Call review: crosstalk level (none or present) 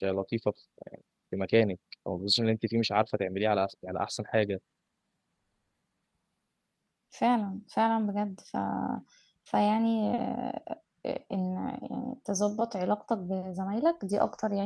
none